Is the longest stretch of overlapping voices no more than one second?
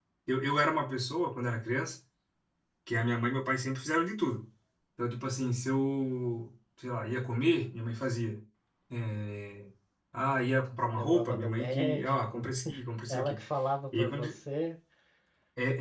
No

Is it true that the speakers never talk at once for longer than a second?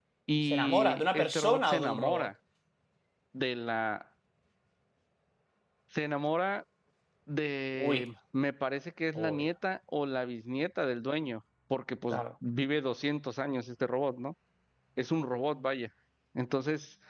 No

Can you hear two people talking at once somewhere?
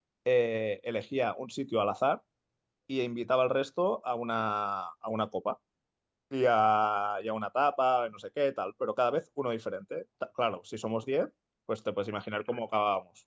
No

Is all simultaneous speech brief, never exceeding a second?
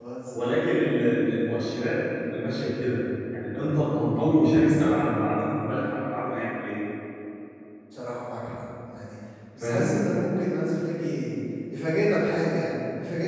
Yes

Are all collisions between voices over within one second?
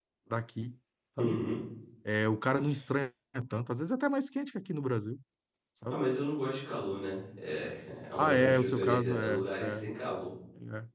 No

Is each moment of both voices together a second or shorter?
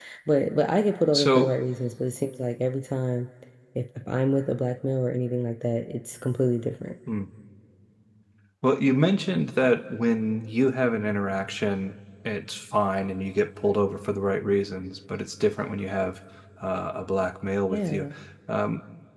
Yes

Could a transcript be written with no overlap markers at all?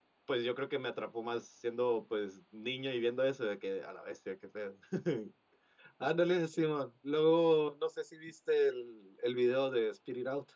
Yes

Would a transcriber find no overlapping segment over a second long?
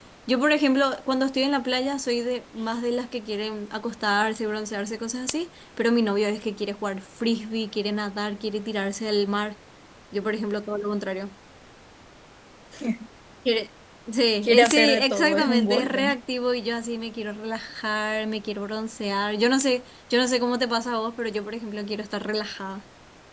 No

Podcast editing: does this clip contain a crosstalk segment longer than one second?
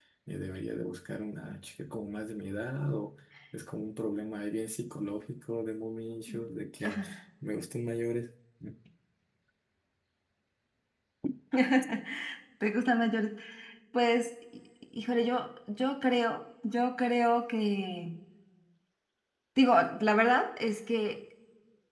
No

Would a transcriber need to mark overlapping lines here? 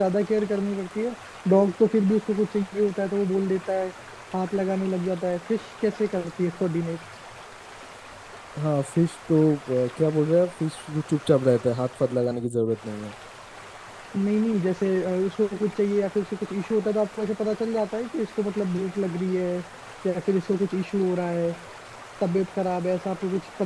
No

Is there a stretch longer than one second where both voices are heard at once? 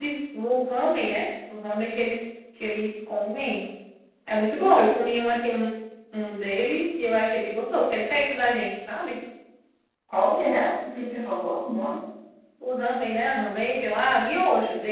No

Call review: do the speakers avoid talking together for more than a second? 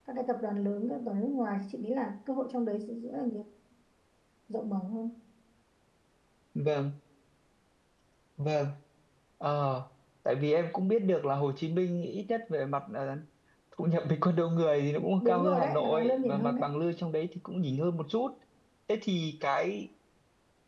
No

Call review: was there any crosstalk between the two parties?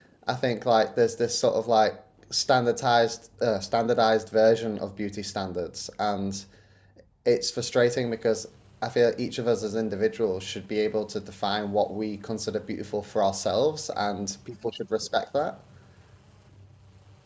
No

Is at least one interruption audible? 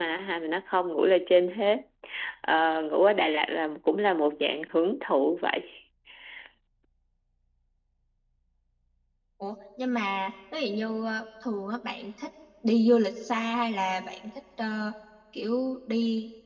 No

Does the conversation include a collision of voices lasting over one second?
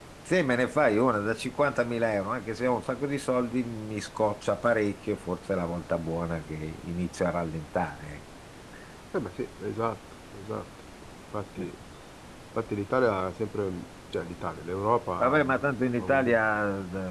No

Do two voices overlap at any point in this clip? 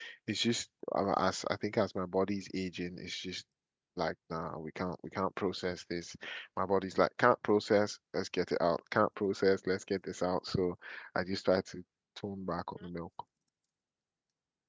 No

